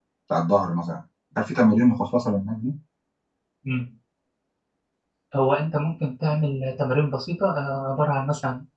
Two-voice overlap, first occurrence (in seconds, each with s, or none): none